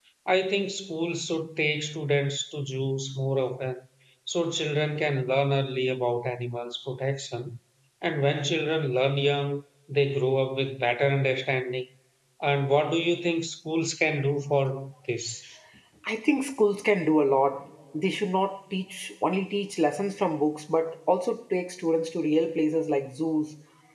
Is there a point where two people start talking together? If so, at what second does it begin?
none

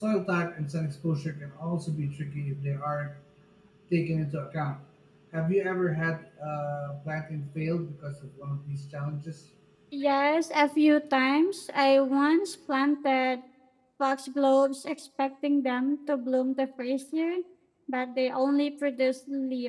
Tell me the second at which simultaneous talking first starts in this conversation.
none

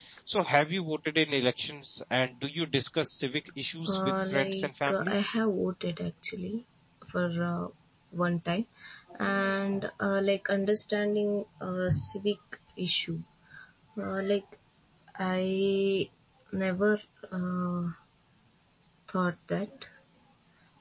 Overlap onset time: 3.9 s

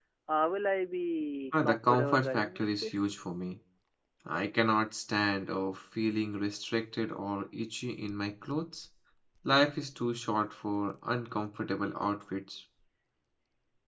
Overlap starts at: 1.5 s

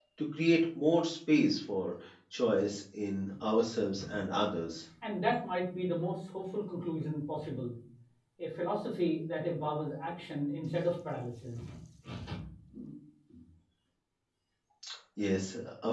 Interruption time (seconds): none

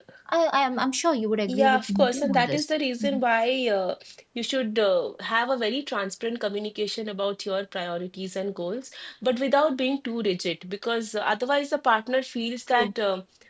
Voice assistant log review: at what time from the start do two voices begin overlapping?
1.5 s

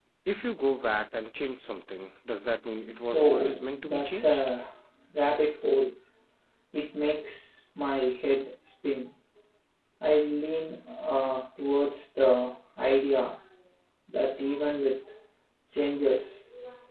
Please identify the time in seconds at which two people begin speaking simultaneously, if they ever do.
3.1 s

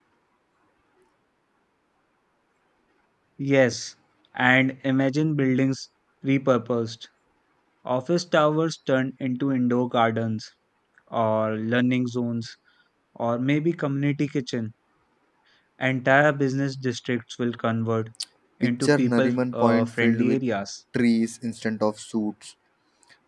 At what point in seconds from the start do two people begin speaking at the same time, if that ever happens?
18.6 s

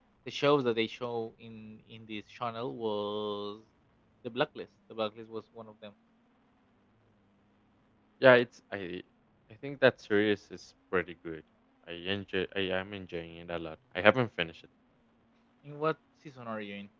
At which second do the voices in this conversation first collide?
none

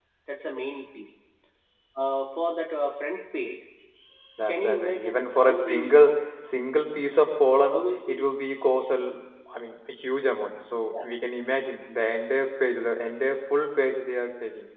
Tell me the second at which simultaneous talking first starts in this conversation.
4.5 s

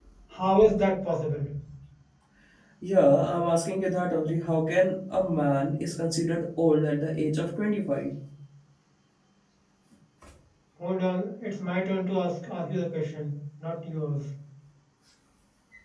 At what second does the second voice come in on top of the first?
none

